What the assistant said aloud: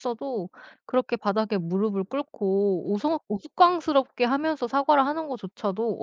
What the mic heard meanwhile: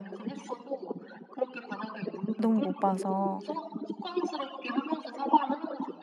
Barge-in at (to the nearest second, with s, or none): 2 s